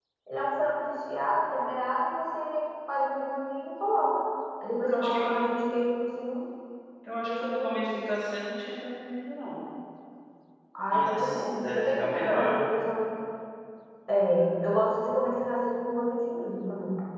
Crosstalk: present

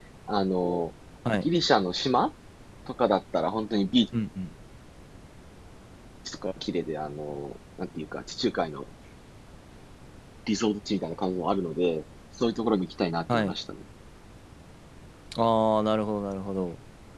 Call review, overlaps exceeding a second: none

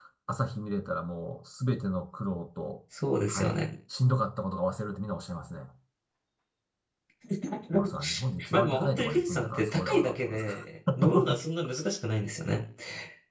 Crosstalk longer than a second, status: present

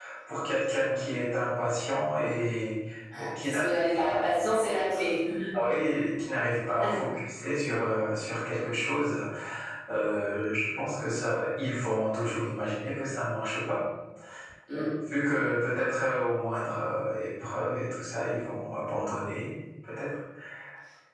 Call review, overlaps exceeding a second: present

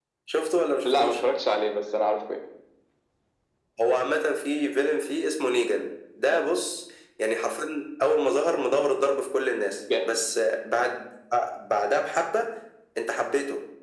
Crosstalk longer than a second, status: none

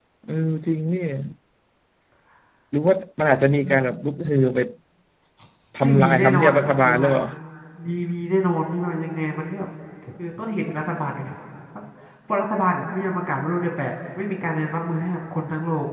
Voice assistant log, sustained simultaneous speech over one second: present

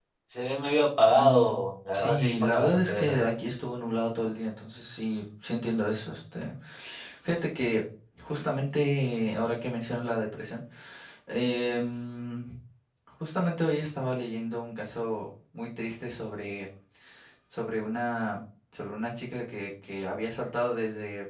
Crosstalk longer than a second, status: present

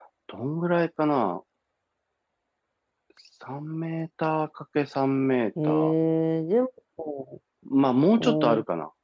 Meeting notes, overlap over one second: none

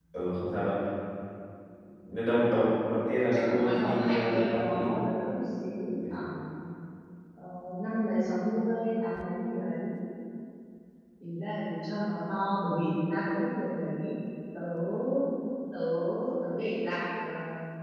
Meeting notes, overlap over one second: present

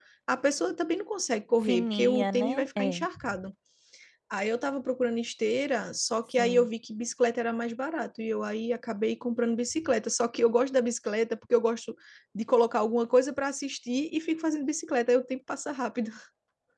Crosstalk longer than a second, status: present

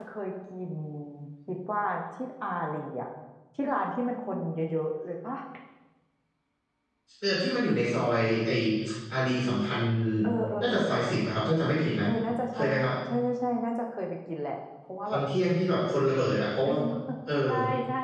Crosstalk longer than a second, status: none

